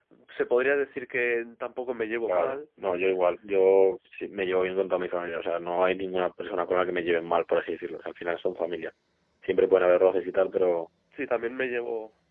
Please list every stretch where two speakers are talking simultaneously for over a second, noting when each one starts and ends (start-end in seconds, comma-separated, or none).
none